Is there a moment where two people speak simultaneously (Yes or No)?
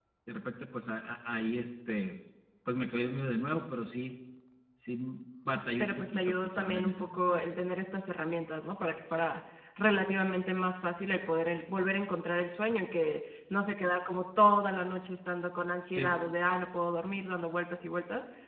Yes